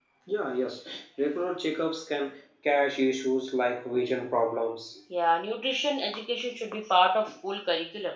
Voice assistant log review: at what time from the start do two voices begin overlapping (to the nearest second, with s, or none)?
none